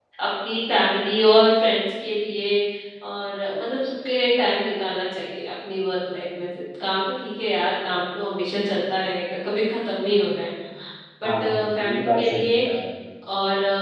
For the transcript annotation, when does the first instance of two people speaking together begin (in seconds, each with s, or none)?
11.4 s